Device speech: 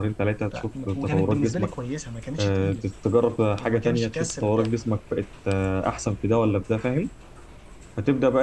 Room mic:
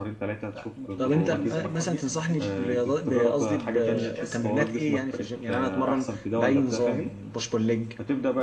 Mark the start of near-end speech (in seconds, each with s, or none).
1.0 s